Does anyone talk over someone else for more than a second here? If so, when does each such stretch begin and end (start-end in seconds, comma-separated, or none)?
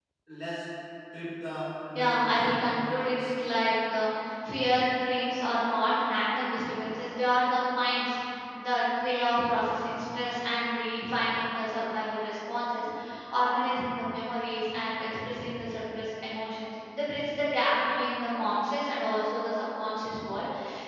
1.9-3.3